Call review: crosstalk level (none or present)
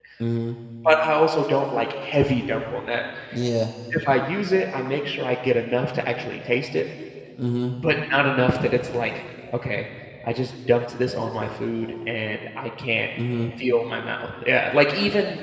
none